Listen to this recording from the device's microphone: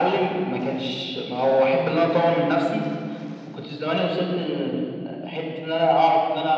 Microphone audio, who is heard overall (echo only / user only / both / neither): echo only